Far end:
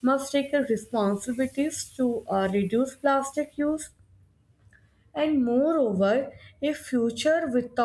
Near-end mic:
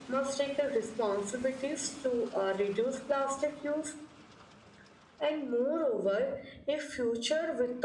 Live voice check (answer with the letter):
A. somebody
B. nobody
B